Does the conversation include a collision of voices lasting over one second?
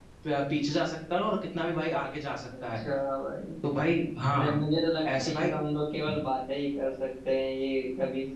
No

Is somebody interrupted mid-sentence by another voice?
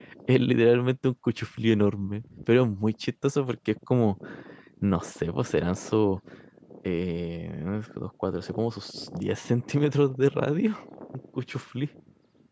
No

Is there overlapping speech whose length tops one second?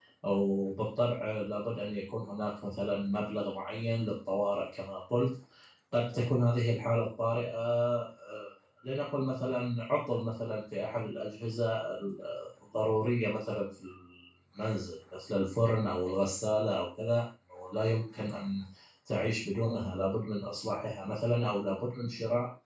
No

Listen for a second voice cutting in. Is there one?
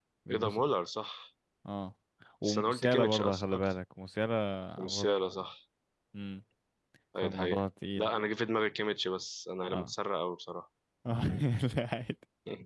Yes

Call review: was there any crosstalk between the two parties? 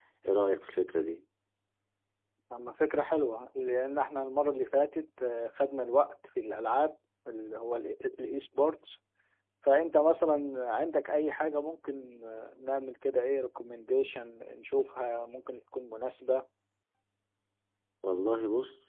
No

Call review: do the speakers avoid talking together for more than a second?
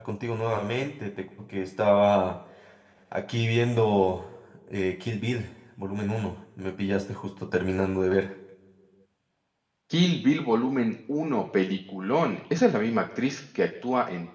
Yes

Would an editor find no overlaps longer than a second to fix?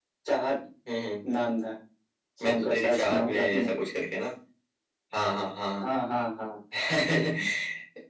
No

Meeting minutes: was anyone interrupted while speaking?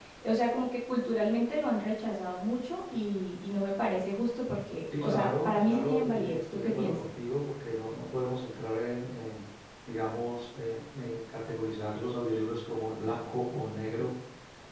Yes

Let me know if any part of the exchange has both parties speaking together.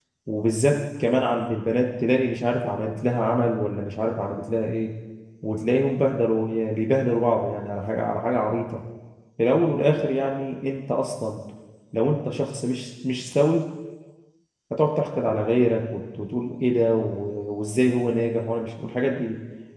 No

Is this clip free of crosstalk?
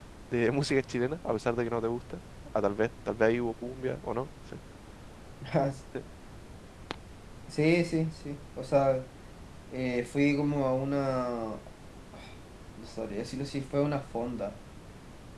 Yes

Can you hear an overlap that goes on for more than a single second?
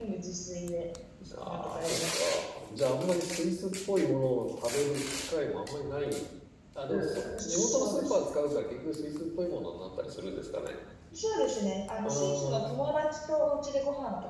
Yes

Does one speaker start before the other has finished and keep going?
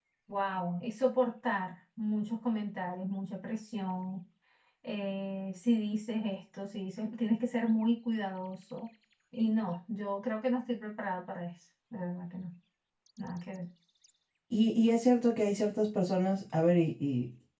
No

